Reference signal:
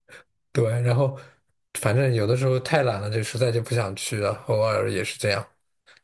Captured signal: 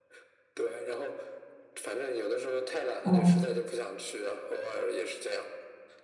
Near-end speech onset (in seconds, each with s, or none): 3.0 s